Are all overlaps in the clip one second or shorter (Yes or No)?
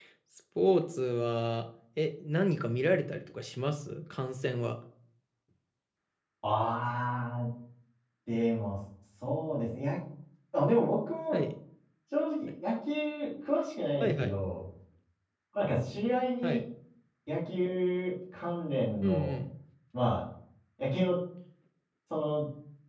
Yes